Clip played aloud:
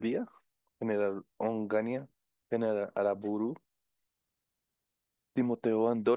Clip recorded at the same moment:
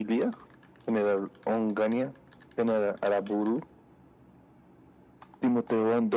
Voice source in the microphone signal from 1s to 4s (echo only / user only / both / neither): echo only